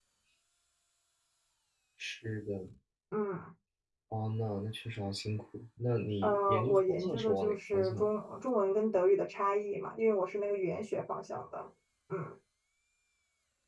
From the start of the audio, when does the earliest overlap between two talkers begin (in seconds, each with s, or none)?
6.2 s